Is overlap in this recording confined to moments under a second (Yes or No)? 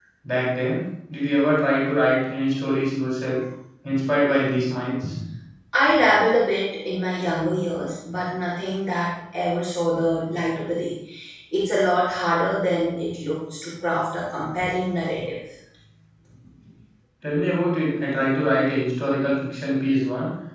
Yes